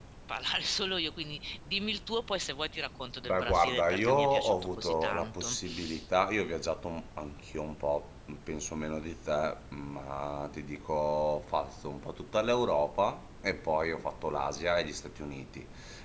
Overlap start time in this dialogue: 3.2 s

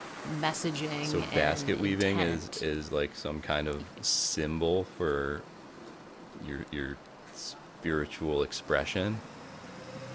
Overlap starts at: 1.0 s

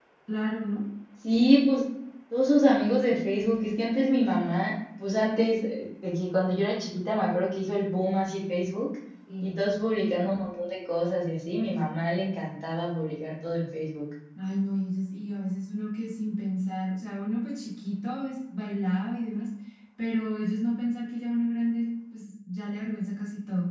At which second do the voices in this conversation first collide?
none

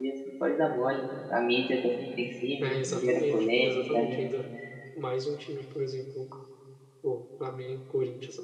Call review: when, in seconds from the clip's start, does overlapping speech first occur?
2.6 s

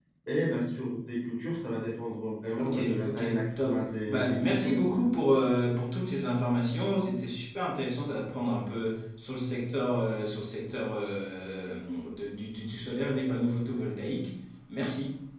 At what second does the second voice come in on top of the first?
2.6 s

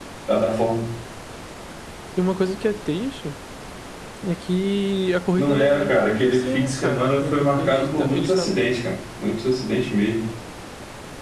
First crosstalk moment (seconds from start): 5.3 s

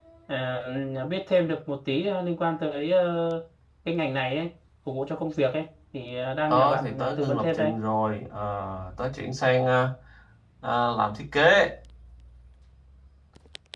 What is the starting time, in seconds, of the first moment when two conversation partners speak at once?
6.5 s

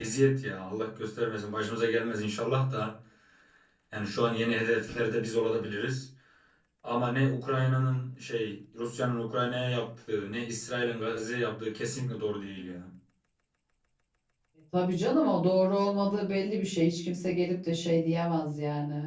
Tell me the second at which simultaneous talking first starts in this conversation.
none

